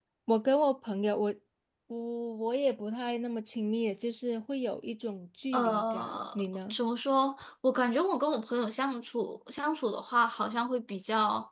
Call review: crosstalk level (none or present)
present